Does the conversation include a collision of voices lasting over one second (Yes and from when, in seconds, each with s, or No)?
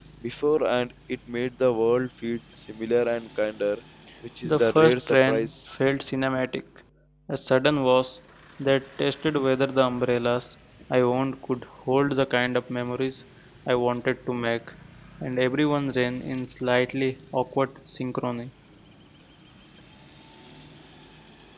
Yes, from 4.4 s